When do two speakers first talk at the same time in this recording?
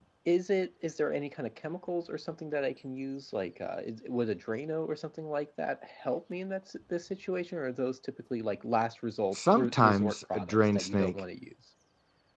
9.3 s

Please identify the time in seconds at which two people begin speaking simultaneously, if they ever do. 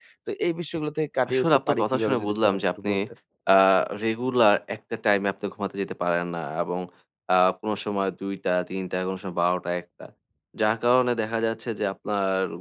1.3 s

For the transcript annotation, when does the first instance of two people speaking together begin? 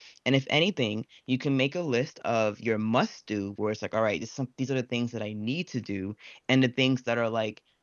none

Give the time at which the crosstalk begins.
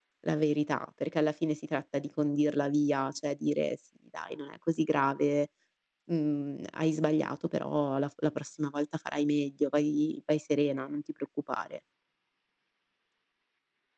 none

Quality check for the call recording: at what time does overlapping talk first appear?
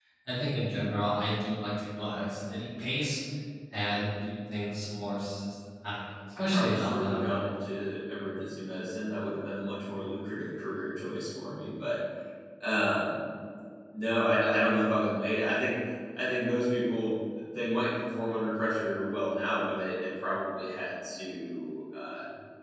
6.3 s

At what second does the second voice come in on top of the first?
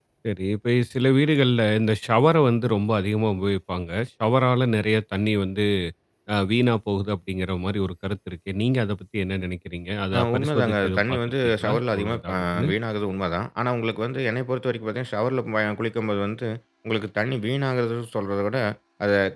10.1 s

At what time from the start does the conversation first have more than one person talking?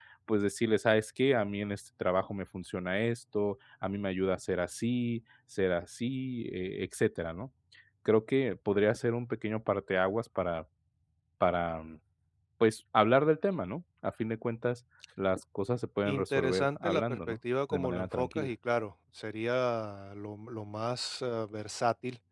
16.1 s

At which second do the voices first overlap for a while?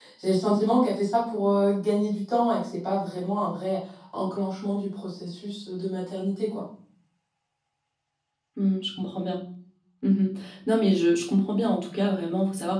none

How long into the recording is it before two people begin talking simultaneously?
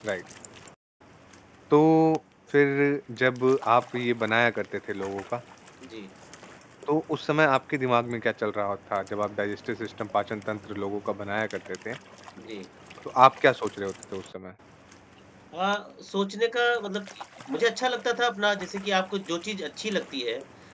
none

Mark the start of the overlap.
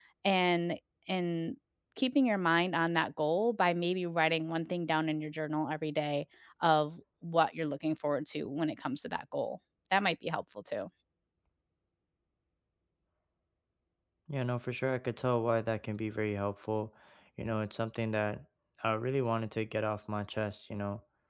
none

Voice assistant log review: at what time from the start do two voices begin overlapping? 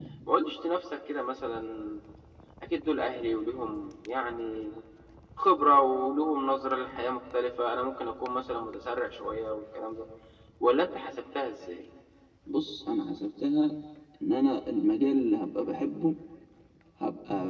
none

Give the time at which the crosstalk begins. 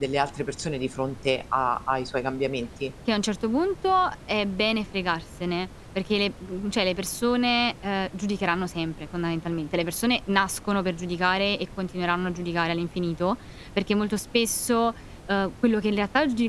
none

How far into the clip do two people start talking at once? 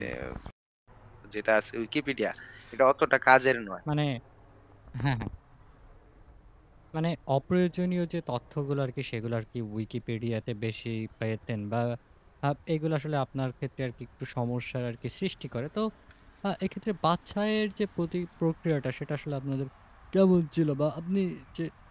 none

